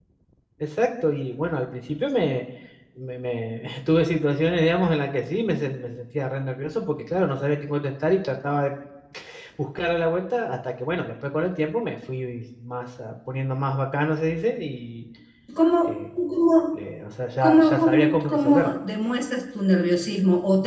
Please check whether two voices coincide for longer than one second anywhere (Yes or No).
Yes